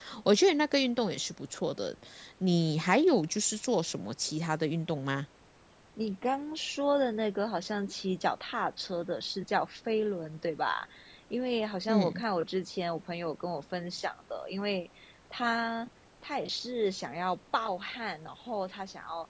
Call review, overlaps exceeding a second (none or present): none